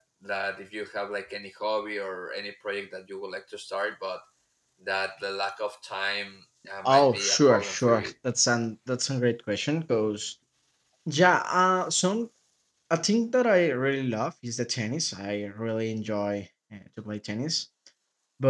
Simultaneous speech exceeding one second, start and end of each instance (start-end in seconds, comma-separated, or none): 6.8-8.1